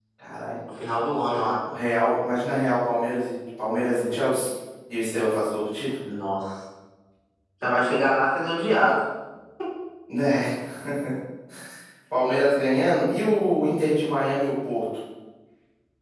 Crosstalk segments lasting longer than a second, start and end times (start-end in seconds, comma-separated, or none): none